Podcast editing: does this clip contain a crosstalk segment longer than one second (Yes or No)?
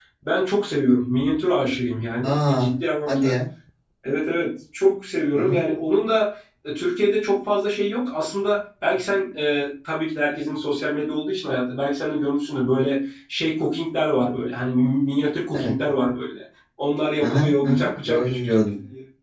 Yes